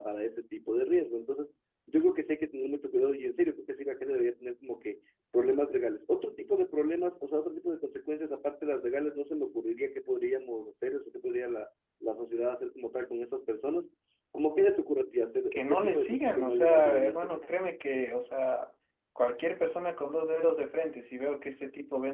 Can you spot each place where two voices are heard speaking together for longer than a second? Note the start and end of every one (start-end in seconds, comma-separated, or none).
15.5-17.4